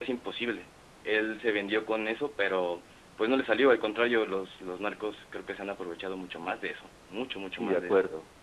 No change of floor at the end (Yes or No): No